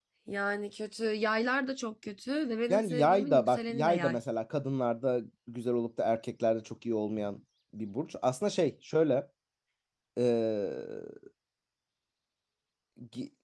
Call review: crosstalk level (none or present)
present